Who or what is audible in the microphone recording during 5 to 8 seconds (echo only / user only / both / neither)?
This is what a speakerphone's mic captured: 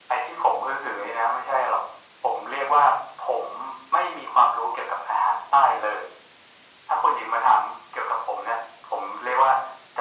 echo only